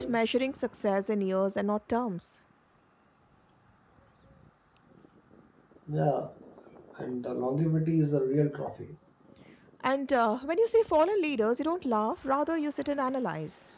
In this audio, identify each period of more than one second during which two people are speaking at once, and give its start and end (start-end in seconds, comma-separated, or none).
none